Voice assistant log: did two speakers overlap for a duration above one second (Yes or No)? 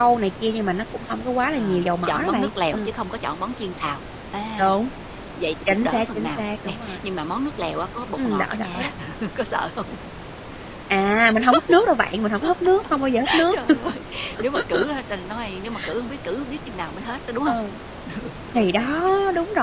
Yes